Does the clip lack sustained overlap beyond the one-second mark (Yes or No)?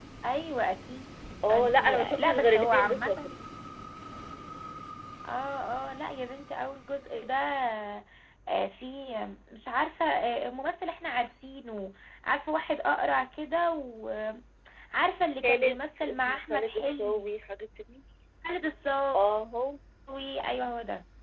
No